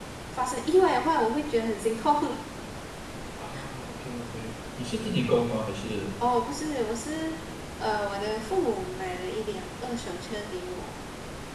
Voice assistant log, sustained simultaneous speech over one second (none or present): none